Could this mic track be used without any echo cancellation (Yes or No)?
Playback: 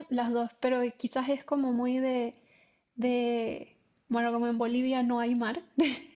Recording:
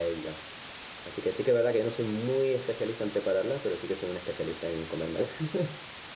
Yes